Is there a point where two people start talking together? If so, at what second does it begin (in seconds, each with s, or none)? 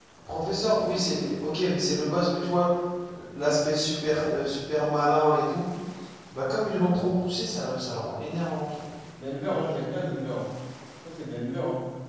none